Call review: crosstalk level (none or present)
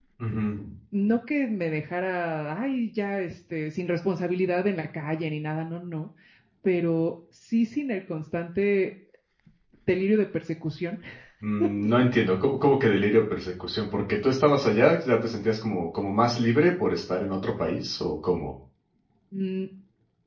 none